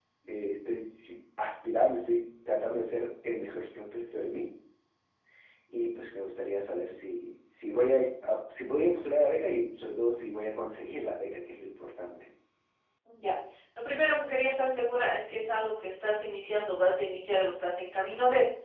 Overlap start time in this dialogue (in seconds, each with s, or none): none